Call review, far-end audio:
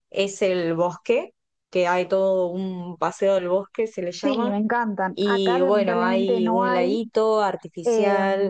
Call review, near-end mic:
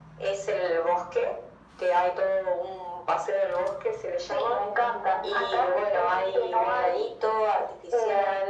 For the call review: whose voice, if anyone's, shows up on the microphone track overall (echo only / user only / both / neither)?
both